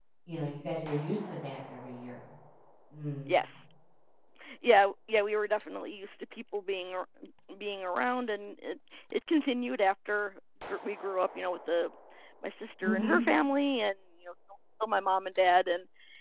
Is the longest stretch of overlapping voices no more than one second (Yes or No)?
Yes